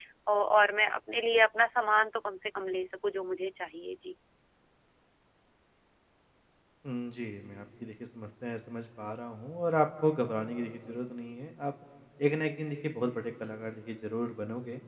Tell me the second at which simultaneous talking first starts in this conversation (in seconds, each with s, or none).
none